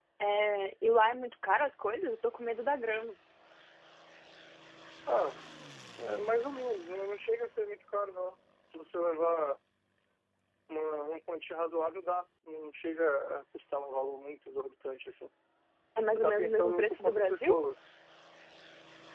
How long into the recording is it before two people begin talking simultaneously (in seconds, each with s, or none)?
16.1 s